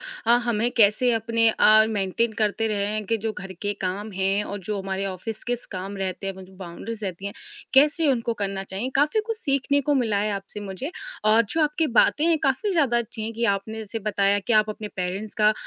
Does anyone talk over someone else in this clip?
No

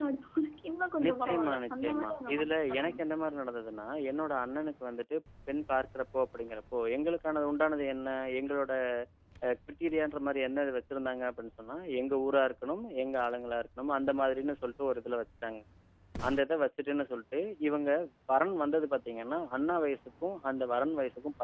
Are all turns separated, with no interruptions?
No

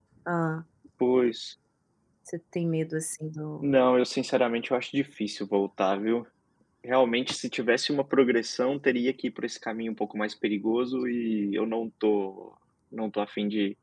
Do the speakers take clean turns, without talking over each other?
Yes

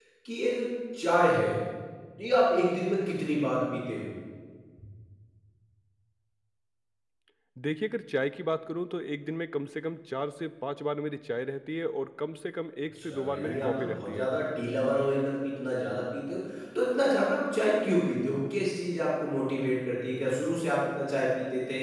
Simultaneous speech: Yes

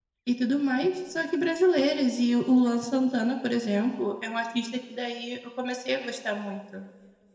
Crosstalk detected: No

